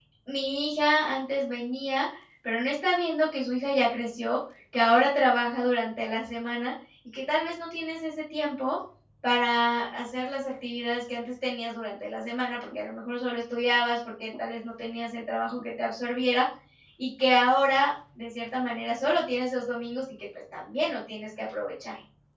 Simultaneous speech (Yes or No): No